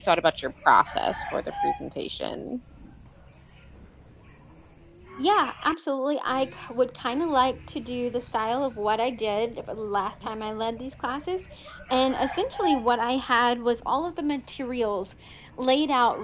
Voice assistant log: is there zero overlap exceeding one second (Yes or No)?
Yes